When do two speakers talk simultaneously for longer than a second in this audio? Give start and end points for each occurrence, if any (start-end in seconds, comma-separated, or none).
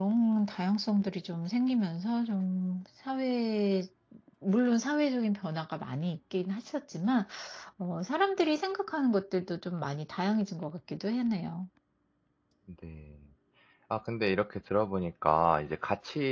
none